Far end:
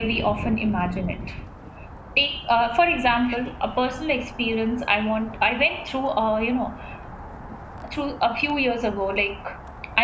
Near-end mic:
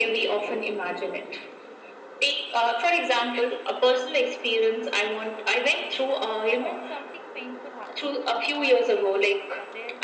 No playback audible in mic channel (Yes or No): No